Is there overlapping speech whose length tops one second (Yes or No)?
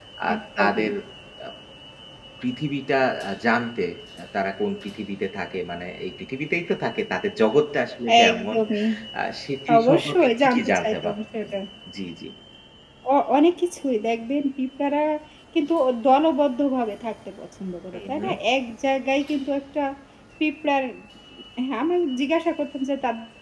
Yes